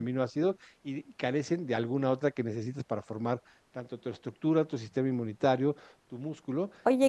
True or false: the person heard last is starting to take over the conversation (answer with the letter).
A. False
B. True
B